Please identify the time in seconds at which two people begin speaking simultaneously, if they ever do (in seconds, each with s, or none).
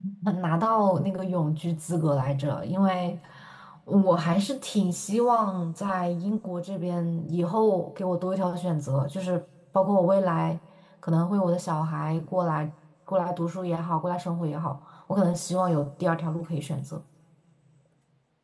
none